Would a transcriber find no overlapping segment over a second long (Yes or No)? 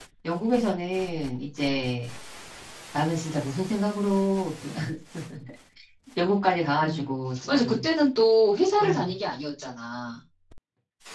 Yes